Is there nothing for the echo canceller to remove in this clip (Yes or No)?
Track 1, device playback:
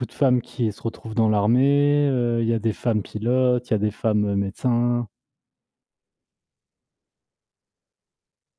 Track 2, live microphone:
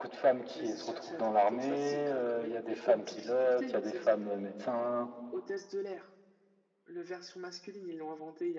No